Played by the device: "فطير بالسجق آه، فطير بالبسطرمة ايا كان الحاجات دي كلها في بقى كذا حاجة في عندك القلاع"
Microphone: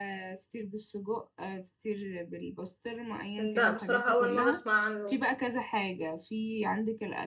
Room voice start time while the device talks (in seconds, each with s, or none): 3.4 s